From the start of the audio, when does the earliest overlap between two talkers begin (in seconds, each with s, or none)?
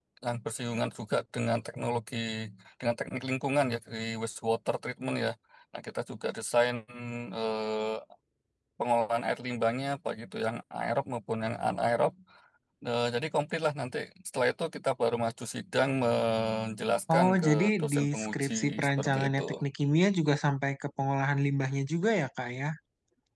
17.1 s